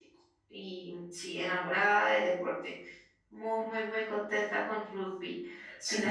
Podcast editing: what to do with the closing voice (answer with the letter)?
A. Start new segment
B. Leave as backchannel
A